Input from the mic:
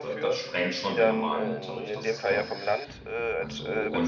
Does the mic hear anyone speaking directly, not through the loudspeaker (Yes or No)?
Yes